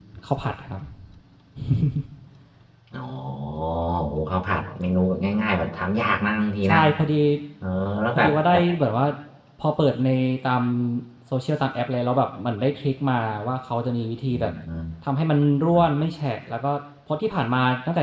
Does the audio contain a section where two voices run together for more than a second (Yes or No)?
No